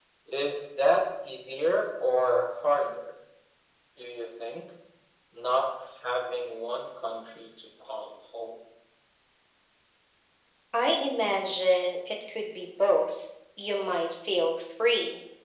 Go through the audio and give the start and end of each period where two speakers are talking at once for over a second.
none

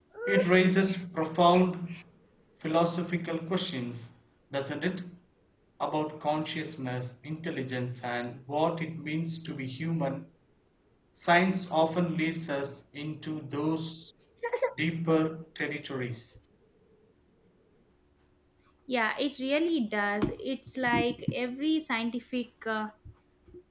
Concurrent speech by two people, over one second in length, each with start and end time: none

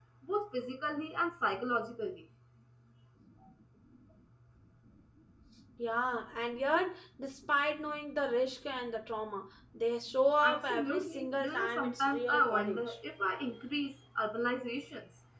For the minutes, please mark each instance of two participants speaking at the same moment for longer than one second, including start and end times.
10.4-12.8

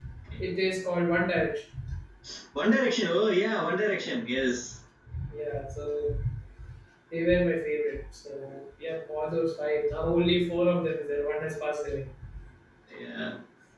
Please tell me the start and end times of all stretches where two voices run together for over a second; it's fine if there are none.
none

